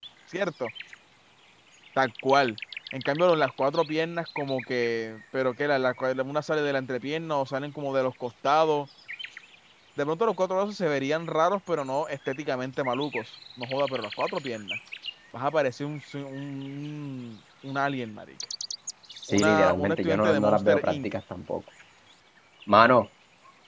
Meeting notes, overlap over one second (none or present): present